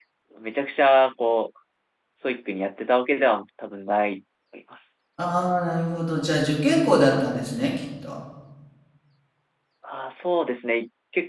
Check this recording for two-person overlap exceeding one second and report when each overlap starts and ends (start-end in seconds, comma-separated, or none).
none